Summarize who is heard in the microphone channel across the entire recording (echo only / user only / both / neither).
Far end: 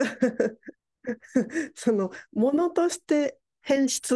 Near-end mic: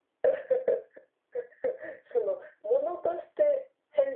echo only